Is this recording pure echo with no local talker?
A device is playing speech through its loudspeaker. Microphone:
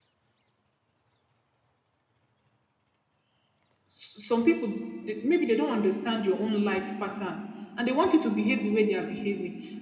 No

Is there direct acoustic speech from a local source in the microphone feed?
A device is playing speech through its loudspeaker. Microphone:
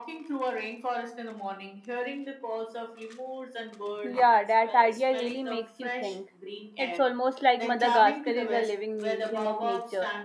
Yes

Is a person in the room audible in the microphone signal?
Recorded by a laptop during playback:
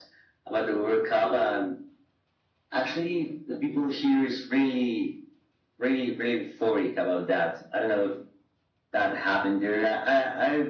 No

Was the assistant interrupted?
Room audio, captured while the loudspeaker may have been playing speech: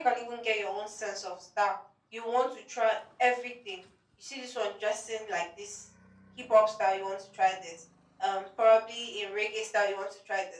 No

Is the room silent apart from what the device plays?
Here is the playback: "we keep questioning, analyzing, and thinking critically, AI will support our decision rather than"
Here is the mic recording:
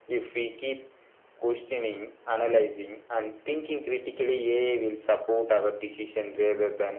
Yes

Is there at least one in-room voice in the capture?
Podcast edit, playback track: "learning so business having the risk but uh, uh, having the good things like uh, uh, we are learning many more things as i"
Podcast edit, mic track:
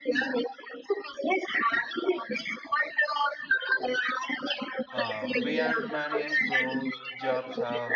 Yes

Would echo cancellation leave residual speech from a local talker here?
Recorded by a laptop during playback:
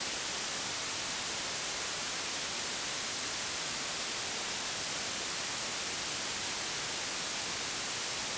No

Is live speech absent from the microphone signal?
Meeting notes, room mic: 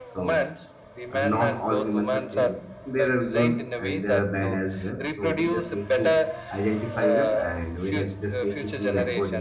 No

